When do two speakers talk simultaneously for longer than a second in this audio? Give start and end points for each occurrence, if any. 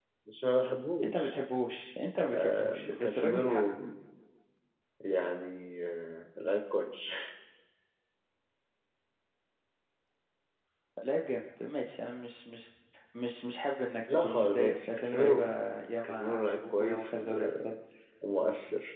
2.3-3.6, 14.1-15.4, 16.0-17.4

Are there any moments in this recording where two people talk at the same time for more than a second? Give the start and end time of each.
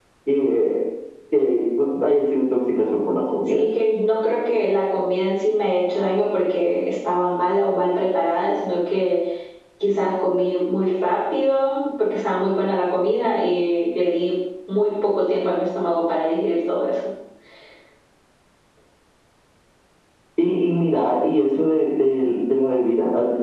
none

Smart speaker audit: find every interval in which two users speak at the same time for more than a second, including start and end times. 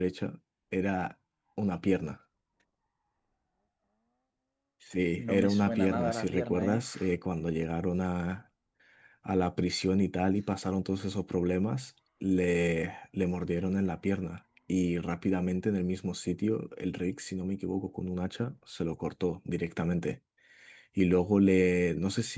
5.2-7.0

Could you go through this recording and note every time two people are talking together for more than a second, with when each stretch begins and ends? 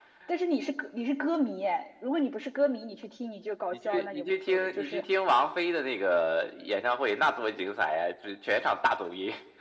3.7-5.0

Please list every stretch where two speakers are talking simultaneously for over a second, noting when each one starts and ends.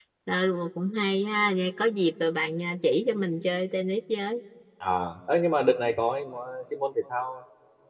none

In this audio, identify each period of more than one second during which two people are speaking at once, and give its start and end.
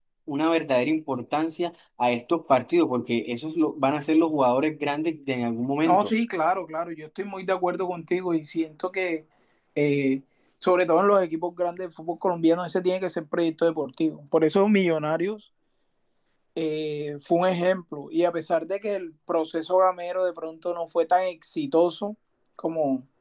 none

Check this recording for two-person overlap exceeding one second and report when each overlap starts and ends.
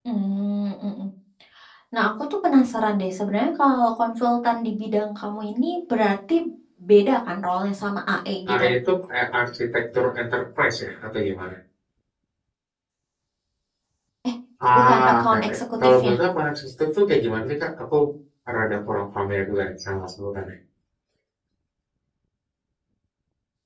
14.8-16.1

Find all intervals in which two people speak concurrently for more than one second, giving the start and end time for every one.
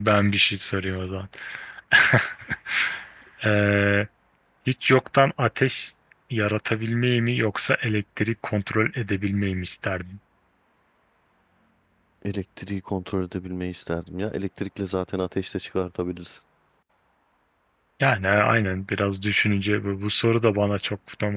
none

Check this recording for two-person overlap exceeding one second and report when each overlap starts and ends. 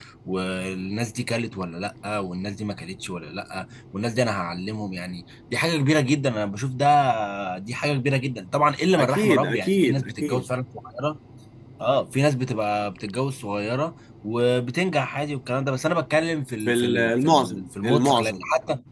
9.0-10.4, 16.6-18.4

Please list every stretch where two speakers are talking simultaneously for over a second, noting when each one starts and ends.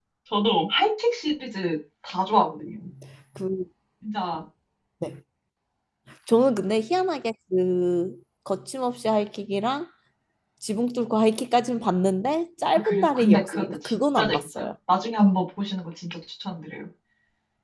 12.7-14.7

